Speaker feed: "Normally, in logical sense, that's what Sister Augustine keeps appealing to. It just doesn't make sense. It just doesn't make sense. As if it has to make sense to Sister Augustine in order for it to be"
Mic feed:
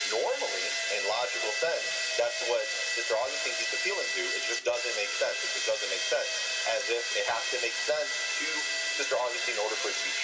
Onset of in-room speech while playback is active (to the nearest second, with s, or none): none